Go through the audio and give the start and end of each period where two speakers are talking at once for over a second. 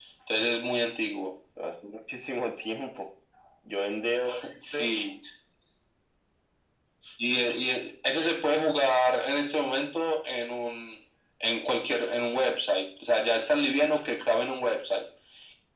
none

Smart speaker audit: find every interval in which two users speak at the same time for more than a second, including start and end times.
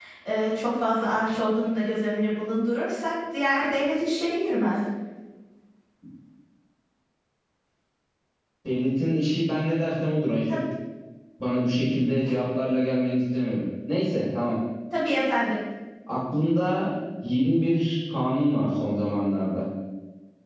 none

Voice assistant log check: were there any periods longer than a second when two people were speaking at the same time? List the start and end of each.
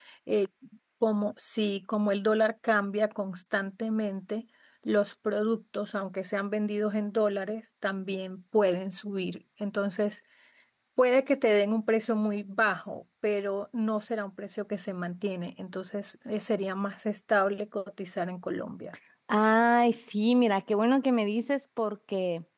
none

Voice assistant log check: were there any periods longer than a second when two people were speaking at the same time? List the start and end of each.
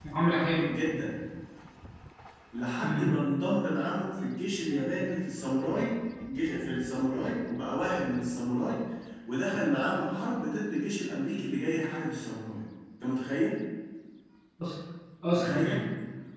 none

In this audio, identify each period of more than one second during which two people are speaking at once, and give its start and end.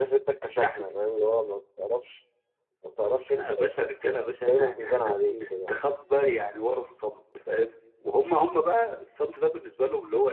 3.3-5.7

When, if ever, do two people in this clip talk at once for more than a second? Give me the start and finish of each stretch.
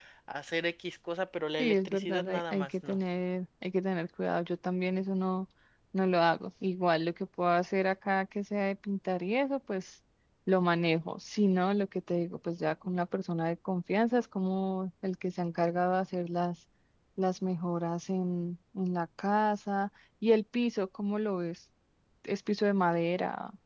1.6-3.0

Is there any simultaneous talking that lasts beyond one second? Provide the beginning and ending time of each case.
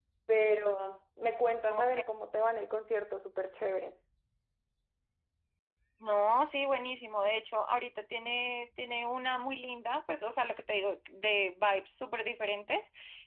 none

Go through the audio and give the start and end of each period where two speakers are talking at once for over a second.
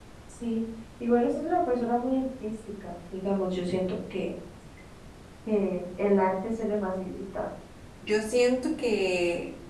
none

